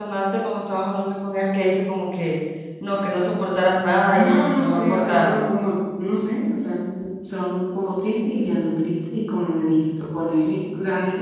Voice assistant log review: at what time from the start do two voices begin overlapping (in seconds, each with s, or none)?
4.1 s